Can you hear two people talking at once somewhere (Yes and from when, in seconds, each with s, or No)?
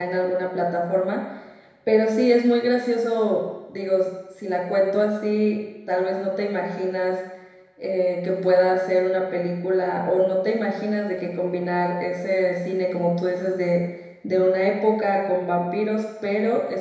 No